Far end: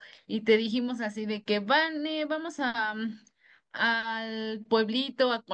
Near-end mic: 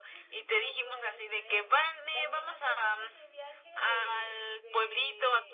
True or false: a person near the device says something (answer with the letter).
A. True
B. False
A